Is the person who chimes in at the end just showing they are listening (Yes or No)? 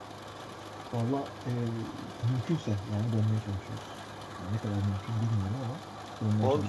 No